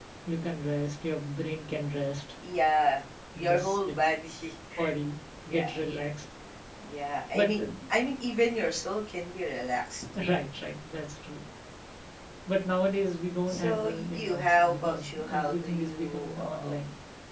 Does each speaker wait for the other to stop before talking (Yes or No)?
No